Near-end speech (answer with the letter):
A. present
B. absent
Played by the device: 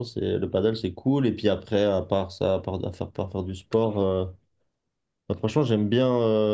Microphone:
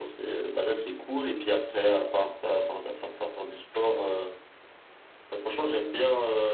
B